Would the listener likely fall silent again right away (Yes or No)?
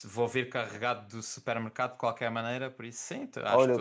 No